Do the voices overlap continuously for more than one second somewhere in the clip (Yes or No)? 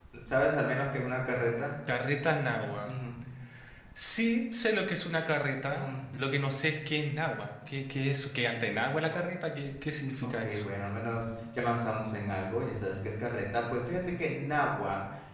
No